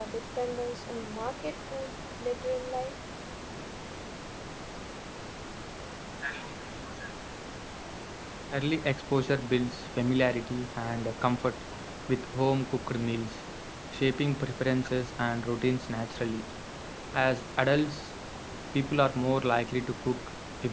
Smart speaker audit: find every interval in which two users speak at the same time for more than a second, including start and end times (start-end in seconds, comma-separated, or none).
none